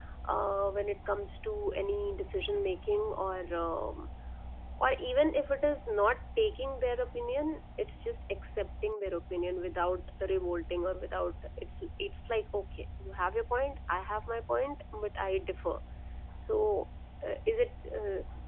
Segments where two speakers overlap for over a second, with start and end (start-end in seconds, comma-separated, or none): none